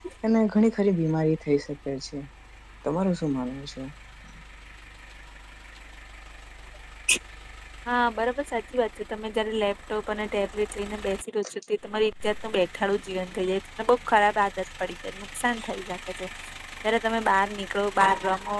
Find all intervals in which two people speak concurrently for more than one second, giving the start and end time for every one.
none

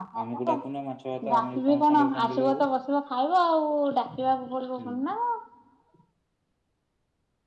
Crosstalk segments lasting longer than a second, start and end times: 1.3-2.6

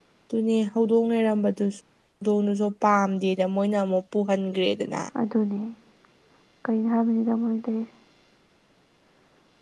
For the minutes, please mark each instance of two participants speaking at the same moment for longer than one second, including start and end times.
none

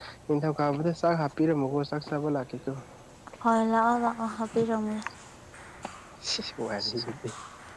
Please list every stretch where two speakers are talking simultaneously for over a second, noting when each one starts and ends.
none

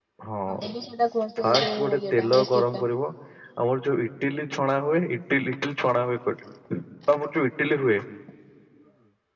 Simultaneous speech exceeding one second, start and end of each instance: 1.4-2.8

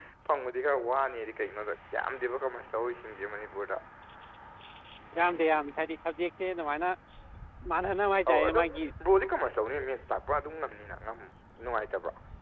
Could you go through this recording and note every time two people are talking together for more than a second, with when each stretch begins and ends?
none

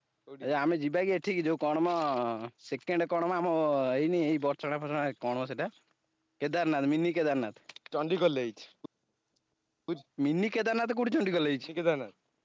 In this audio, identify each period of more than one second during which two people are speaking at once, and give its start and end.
none

